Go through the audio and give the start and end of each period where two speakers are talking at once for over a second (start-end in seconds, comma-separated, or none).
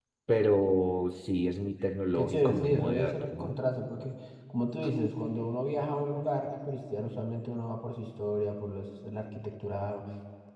2.1-3.5